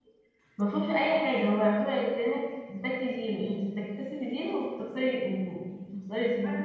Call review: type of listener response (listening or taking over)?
taking over